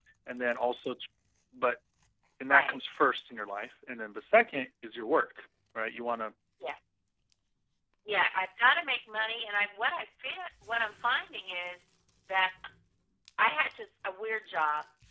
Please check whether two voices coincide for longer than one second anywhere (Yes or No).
No